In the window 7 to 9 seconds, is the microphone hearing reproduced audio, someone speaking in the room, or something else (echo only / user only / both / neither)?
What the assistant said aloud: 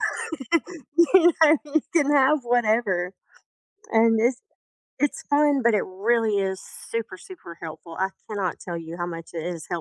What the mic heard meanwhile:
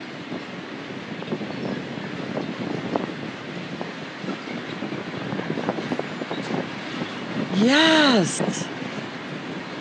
user only